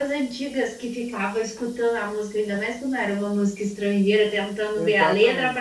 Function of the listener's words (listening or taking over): listening